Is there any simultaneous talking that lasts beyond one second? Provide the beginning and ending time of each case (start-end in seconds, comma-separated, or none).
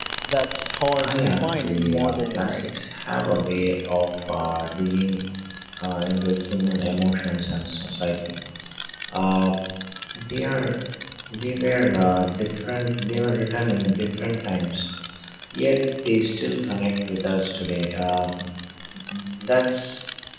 1.0-2.8